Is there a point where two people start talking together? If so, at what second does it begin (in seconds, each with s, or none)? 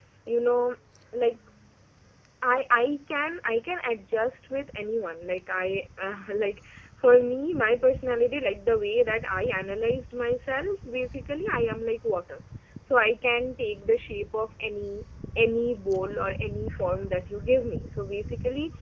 none